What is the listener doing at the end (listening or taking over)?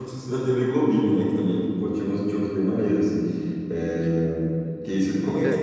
listening